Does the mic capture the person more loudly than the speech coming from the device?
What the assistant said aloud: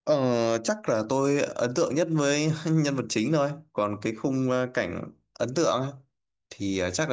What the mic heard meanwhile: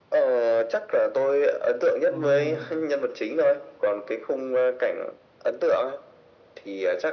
No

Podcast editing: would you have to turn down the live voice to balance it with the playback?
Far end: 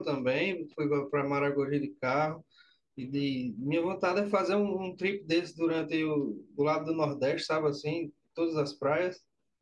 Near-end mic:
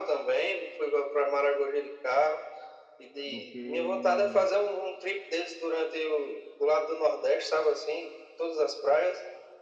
No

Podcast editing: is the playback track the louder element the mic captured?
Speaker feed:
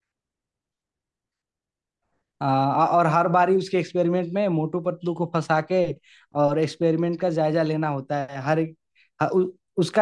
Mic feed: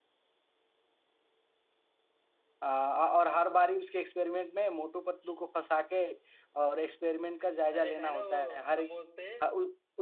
Yes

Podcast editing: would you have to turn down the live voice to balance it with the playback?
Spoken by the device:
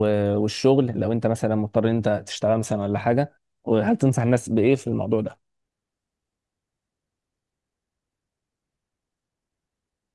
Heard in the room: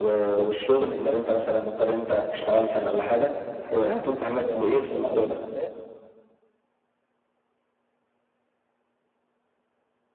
No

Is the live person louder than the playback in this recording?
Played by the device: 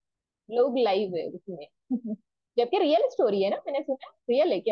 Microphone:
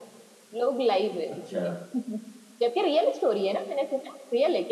No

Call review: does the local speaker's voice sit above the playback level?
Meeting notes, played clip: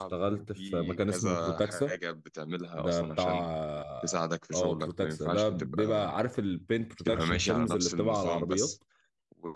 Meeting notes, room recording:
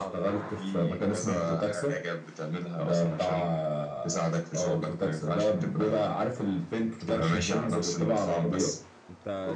No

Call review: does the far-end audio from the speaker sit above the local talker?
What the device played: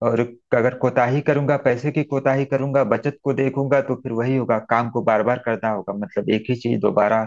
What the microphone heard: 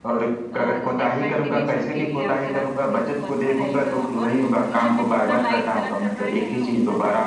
Yes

